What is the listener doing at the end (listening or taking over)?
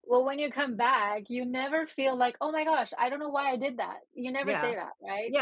taking over